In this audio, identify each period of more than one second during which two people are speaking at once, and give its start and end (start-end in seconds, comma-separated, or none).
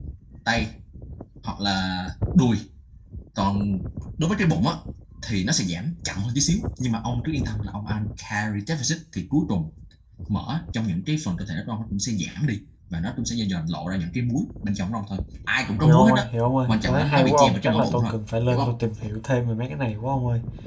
16.7-18.1